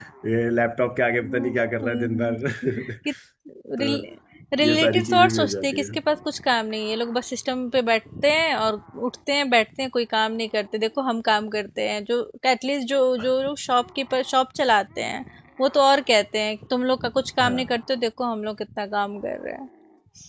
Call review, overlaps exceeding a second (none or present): present